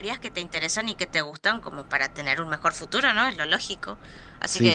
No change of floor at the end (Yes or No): Yes